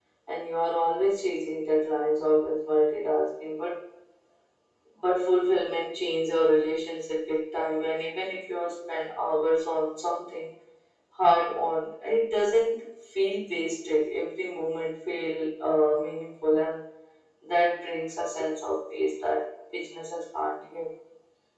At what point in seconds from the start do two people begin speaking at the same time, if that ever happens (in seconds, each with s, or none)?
none